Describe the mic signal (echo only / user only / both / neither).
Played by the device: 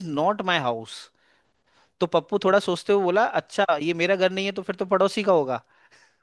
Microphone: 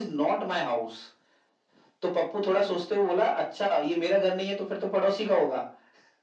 echo only